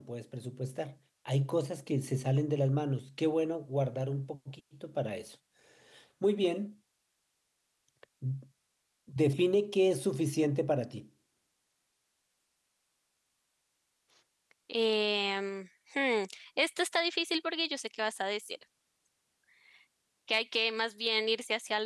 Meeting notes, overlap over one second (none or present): none